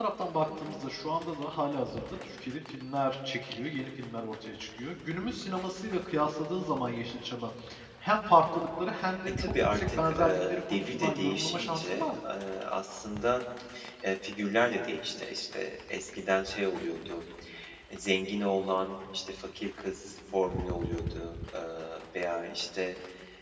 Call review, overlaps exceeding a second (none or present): present